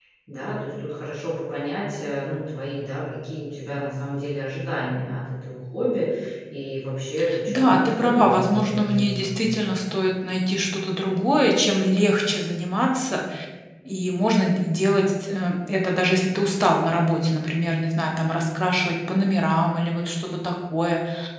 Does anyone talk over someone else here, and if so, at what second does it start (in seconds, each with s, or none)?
7.5 s